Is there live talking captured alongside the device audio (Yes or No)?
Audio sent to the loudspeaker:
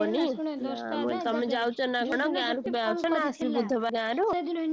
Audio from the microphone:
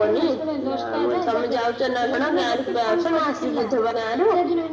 No